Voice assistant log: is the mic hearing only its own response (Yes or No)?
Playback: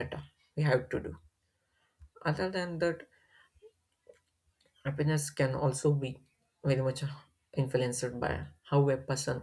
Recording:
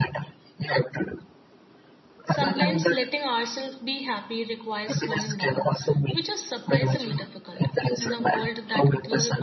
No